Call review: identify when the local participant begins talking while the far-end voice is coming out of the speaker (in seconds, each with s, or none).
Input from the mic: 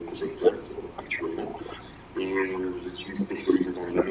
none